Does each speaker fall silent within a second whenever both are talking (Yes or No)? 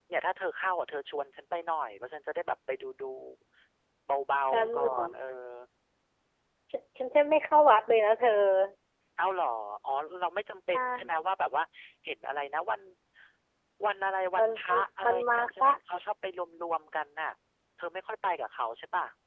No